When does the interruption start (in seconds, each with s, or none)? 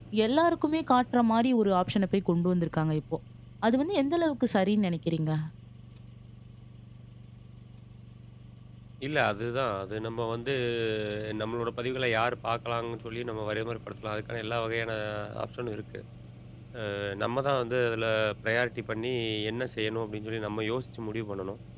none